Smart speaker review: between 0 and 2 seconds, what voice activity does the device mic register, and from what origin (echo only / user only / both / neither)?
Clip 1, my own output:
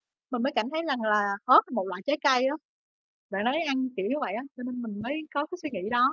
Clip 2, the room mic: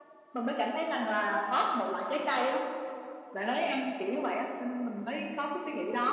echo only